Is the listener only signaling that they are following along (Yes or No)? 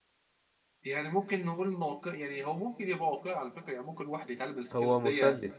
No